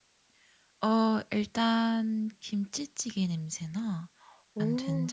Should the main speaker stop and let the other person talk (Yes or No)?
No